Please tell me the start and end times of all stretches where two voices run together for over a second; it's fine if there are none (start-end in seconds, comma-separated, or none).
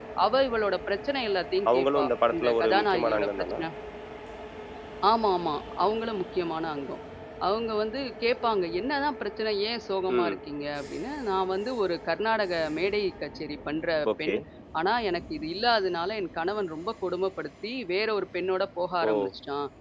1.7-3.6